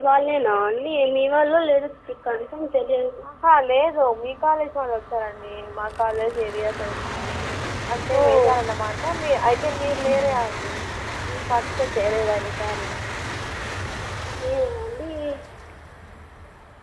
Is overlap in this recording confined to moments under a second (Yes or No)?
Yes